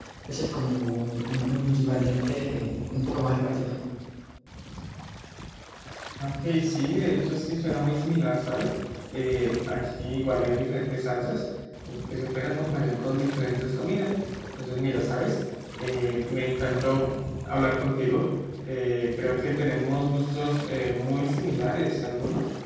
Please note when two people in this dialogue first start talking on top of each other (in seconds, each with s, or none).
none